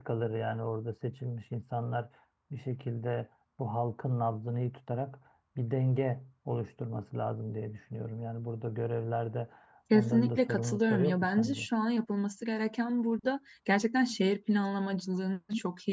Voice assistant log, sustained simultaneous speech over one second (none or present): present